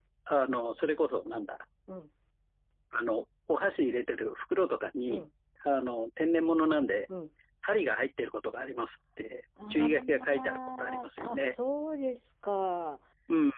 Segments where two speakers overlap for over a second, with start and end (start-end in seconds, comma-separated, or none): 9.7-11.6